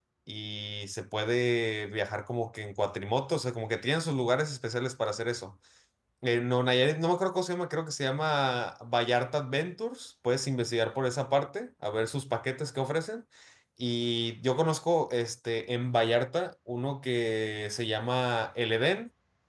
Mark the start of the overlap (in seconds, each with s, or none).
none